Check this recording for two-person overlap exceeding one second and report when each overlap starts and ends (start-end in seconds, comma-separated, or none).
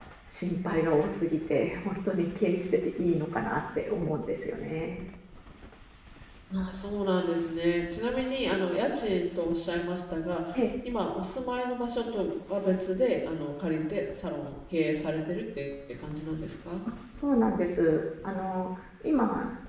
none